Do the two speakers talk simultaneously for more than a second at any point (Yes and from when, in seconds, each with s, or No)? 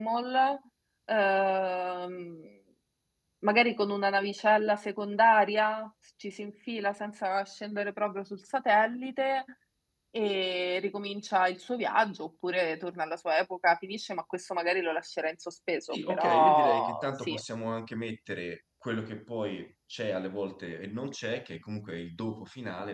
Yes, from 15.8 s